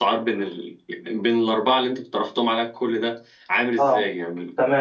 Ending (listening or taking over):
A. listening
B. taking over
B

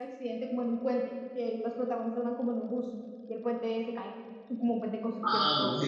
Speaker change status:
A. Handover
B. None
A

